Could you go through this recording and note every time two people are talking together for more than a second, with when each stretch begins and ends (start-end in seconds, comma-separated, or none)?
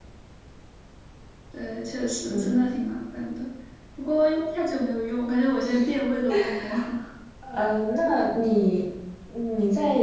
none